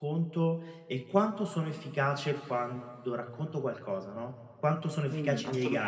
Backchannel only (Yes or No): No